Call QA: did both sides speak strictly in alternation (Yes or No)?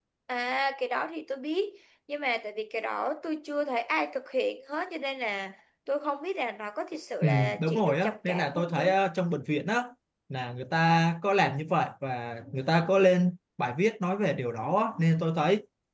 No